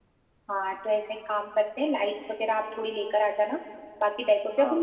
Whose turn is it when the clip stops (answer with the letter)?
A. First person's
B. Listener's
A